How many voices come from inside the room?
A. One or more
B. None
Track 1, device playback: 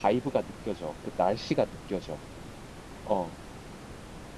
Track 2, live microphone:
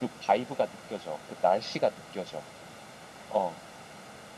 B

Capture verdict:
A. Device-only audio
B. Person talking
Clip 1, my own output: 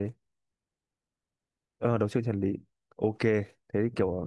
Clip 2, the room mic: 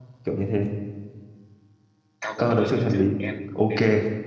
B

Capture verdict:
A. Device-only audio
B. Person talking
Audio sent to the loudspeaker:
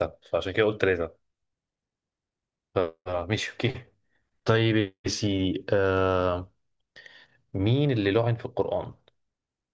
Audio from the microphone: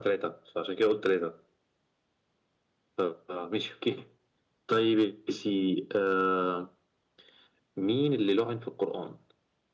A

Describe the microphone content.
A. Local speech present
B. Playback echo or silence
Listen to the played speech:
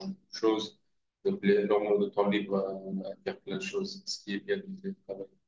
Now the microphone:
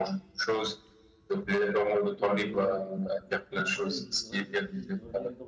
A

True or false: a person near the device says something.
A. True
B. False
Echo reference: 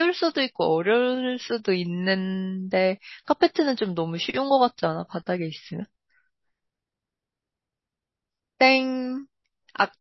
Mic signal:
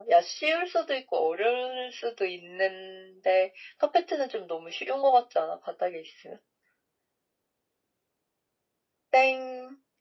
B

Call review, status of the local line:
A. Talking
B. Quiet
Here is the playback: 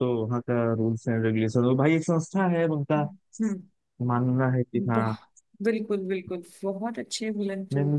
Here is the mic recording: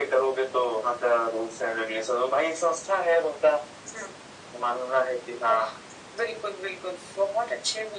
B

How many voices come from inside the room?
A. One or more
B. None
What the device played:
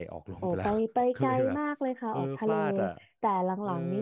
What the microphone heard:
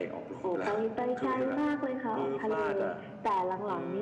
B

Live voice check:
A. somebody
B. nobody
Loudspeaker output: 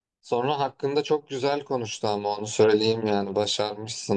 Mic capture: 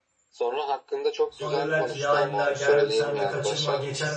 A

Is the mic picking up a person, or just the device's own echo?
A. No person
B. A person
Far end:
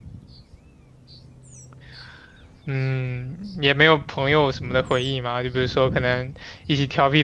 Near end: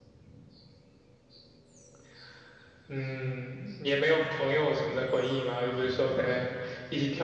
A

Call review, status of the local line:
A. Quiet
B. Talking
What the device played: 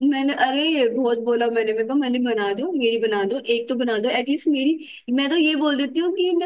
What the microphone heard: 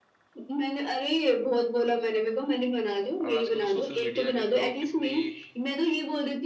B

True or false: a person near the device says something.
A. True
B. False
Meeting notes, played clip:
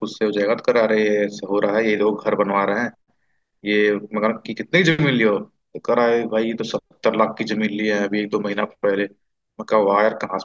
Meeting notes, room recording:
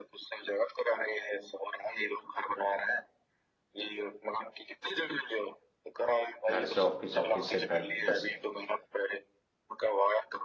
A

